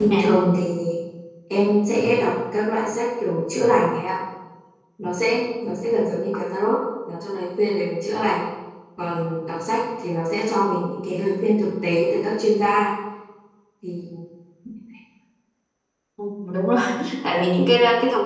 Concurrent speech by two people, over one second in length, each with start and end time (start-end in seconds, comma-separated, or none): none